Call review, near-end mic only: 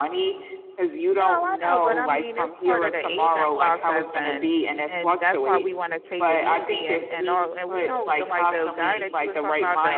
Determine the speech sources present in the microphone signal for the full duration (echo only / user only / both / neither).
both